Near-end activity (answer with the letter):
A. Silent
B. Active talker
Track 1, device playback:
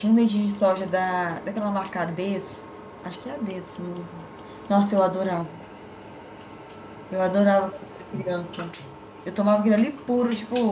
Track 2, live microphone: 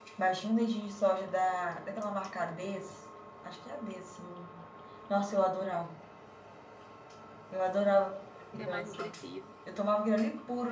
B